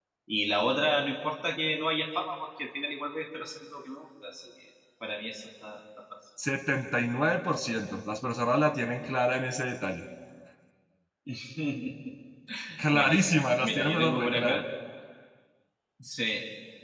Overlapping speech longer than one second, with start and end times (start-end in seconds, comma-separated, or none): 12.9-14.6